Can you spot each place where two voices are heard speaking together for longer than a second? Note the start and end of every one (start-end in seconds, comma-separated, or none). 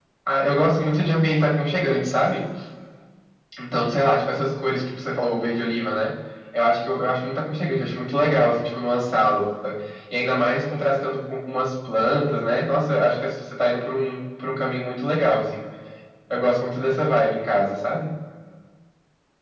none